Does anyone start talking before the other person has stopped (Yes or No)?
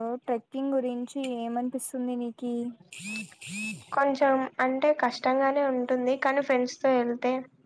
No